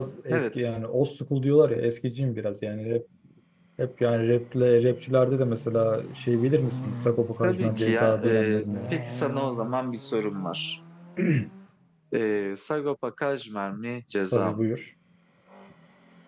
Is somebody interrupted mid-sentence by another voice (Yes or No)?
Yes